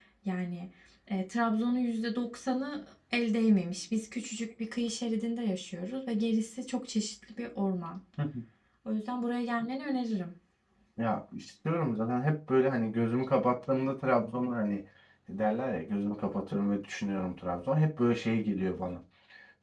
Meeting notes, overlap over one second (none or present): none